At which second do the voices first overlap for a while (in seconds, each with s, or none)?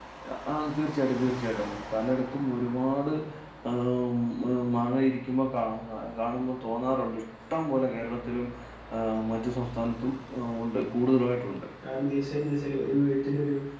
none